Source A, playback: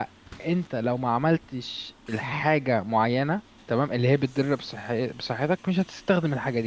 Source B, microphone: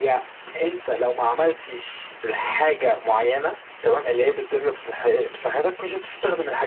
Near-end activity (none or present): none